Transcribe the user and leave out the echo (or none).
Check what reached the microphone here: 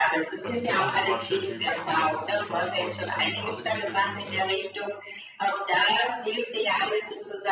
War total unsympathischer Typ, habe mich ja trotzdem mit Closing Calls ein bisschen um die Nase gewickelt und, äh,